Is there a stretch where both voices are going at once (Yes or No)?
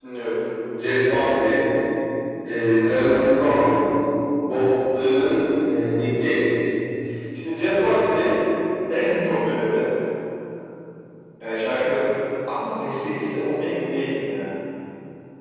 No